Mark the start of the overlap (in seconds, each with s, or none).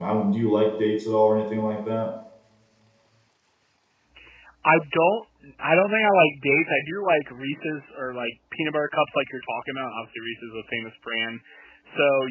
none